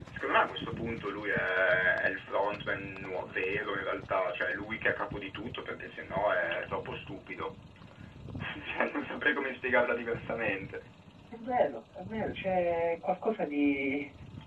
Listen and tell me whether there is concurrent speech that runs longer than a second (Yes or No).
No